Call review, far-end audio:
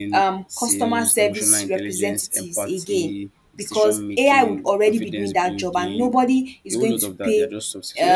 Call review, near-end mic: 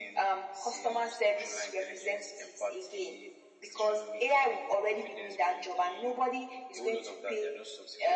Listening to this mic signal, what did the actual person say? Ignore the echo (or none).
none